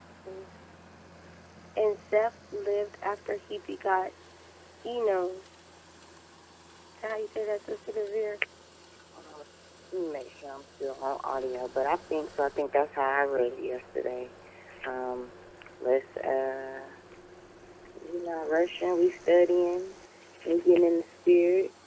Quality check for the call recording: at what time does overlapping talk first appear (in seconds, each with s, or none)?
none